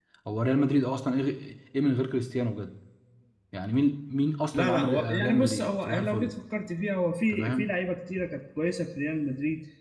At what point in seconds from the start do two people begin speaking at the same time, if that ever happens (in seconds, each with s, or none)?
4.5 s